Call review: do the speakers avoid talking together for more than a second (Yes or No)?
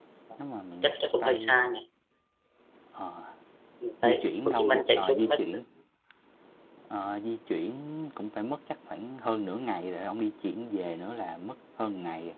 No